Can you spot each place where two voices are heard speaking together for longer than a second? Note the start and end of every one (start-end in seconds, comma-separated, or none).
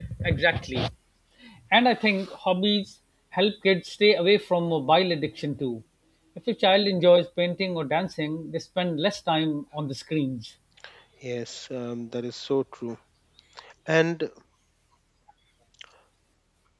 none